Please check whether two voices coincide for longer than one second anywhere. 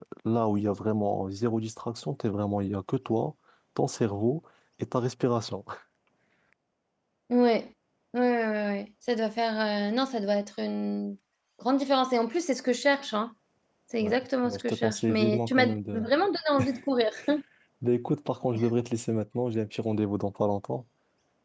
Yes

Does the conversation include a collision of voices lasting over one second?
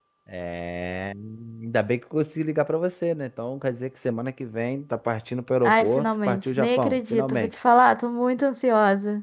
Yes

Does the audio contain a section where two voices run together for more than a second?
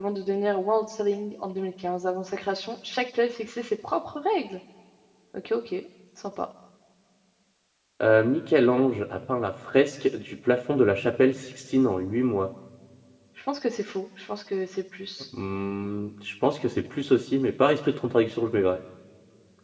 No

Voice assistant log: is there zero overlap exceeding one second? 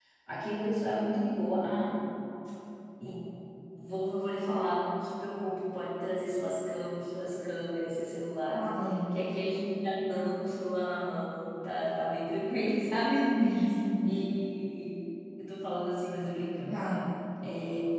Yes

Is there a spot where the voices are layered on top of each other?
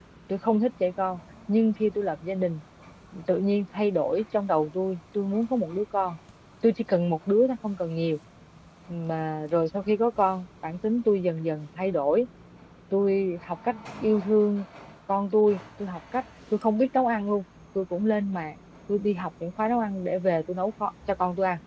No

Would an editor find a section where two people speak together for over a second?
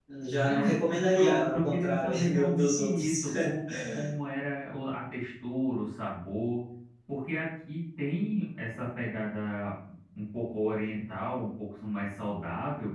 Yes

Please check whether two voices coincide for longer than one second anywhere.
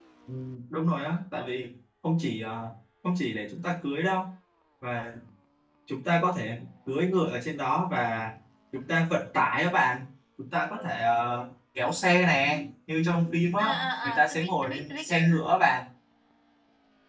Yes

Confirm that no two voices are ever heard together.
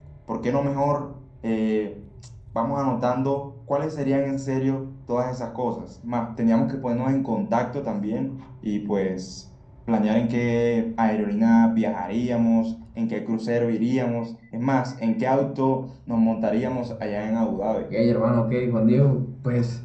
Yes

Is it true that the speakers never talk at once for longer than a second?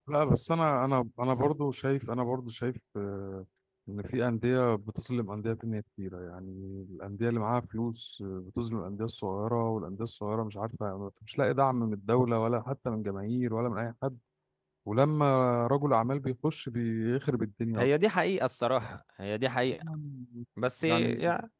Yes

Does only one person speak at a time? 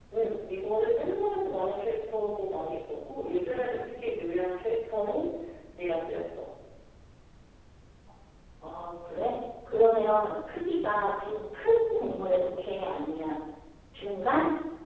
Yes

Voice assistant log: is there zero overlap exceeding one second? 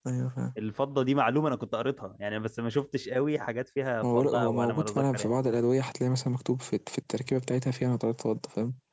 No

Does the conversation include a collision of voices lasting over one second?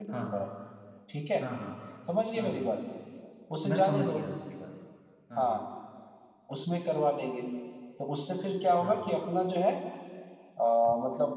No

